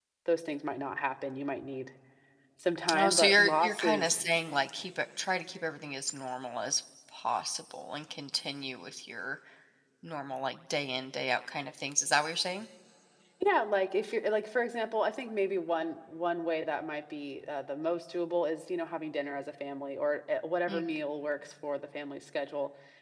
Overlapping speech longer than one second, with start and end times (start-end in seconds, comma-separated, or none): 2.9-4.2